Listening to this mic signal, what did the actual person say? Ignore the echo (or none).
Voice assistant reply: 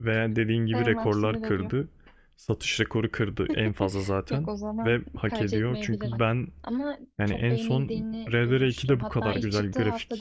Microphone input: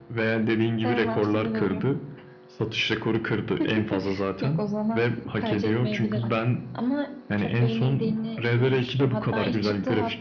none